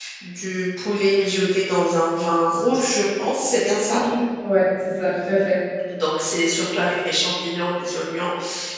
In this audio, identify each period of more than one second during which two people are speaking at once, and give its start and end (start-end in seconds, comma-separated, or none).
none